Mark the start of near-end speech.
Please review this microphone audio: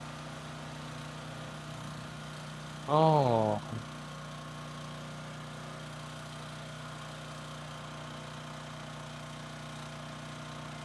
3 s

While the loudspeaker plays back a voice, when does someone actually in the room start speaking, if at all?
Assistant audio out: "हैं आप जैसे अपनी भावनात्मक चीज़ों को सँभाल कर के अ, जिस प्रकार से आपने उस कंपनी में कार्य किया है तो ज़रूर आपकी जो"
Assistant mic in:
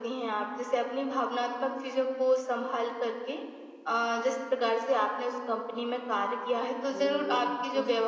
7 s

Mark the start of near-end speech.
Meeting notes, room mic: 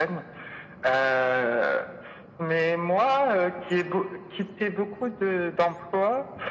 none

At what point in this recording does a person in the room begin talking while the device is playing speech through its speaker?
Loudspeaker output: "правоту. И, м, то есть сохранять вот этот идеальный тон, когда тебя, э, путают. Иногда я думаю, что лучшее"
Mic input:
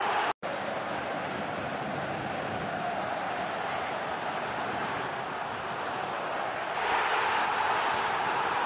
none

